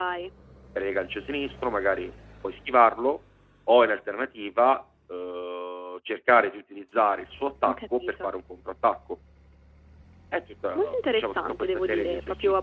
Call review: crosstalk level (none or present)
present